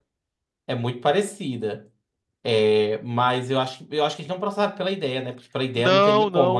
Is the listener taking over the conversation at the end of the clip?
Yes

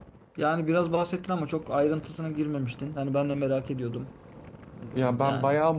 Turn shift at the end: Yes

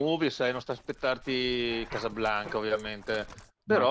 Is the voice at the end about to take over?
No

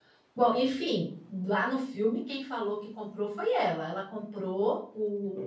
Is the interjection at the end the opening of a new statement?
No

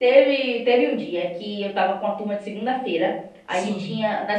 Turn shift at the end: No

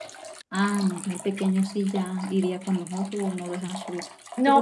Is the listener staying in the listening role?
No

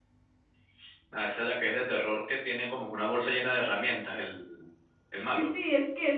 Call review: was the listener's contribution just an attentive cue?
No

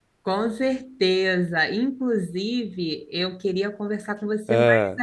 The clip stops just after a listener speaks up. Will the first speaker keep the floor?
Yes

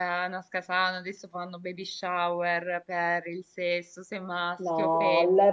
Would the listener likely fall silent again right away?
No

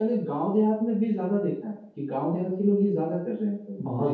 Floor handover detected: Yes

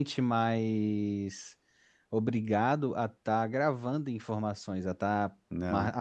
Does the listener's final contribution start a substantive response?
No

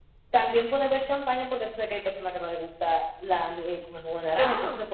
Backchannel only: Yes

